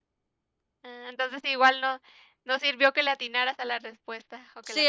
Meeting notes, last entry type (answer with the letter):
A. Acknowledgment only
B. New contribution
B